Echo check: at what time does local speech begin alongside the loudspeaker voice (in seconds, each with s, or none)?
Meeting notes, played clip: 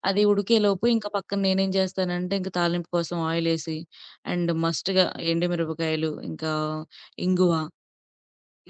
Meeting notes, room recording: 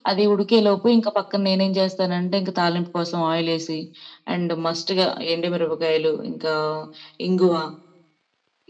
none